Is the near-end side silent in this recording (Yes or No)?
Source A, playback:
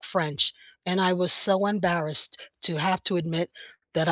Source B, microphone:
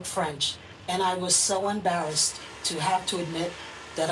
Yes